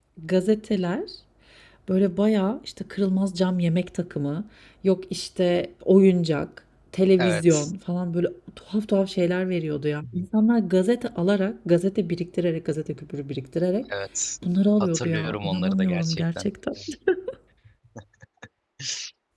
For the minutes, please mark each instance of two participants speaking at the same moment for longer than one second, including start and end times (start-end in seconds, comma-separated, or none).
14.8-16.5